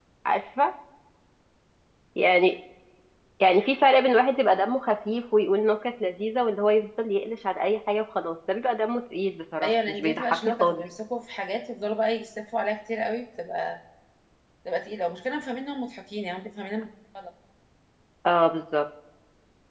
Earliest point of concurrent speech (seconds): 9.6 s

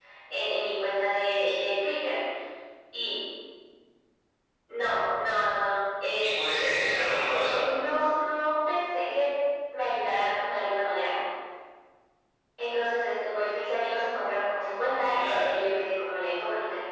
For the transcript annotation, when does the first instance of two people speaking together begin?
6.2 s

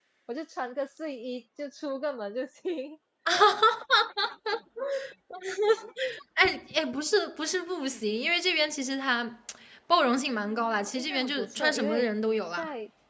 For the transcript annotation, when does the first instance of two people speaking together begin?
10.4 s

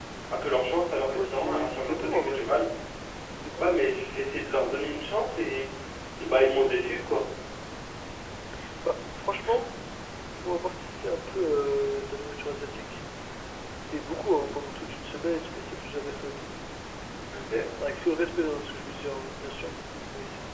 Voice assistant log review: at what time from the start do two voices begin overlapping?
1.2 s

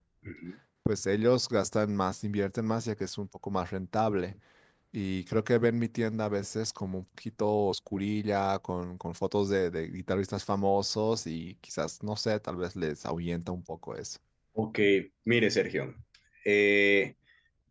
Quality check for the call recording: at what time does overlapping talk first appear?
none

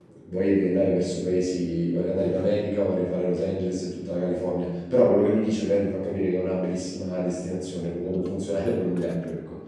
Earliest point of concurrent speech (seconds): none

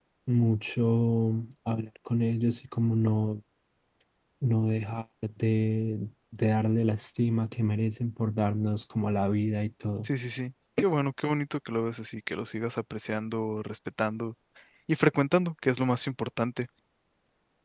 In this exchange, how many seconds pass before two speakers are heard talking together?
none

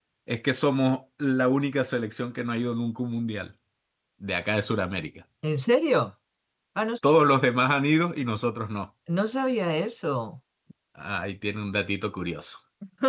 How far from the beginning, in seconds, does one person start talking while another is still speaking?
none

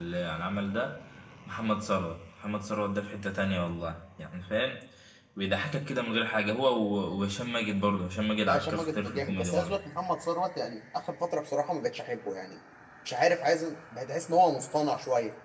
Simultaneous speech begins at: 8.5 s

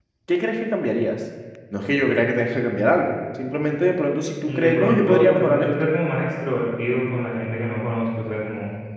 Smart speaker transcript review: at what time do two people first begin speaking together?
4.5 s

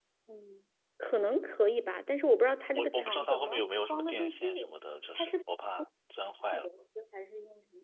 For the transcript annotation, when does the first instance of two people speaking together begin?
2.7 s

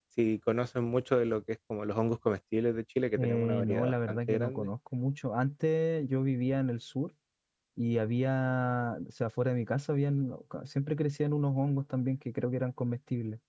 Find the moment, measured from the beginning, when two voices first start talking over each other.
3.2 s

